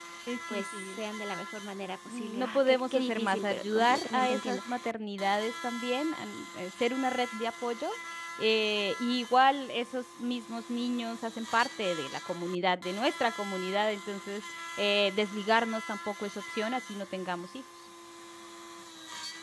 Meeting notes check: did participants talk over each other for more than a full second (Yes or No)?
Yes